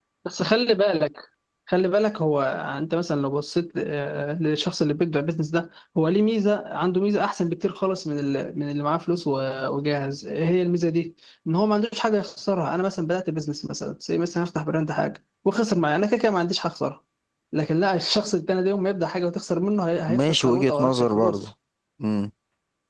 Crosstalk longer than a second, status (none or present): present